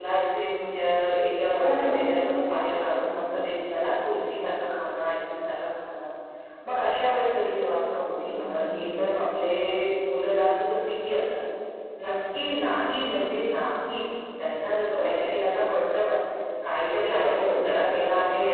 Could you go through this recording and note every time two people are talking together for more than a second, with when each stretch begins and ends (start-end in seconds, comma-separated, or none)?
none